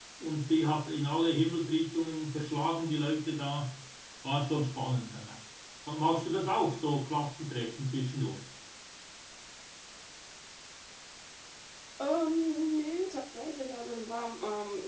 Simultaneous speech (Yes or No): No